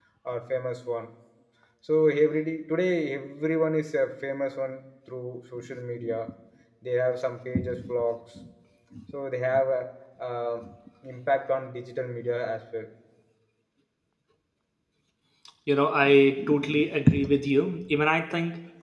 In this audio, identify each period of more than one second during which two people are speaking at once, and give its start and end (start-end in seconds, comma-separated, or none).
none